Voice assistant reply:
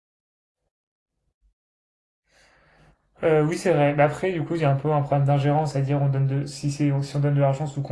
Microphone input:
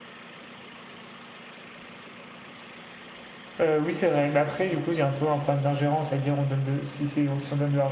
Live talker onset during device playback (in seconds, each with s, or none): none